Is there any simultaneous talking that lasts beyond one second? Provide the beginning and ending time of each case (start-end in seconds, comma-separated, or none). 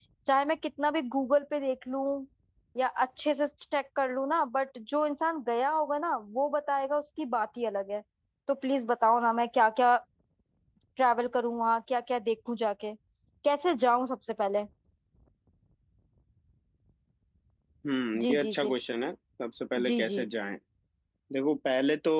none